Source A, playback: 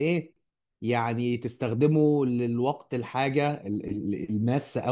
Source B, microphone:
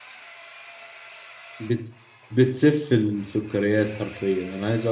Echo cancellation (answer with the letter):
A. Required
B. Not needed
B